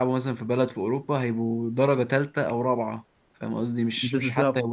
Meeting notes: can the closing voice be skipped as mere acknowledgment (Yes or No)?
No